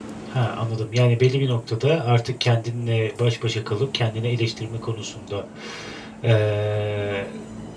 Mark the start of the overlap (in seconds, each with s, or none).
none